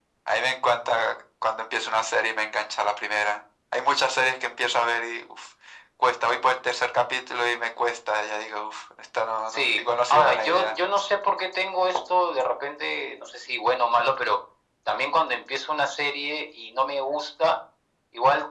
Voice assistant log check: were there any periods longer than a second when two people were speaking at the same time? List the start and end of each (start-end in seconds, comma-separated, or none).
9.5-10.8